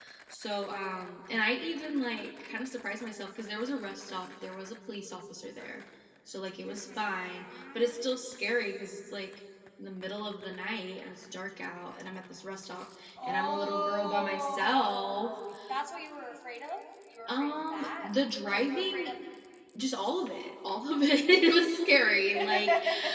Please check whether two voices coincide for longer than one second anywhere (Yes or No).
Yes